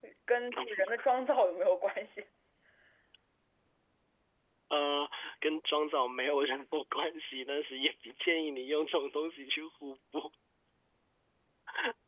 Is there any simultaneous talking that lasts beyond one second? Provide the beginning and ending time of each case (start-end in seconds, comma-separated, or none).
none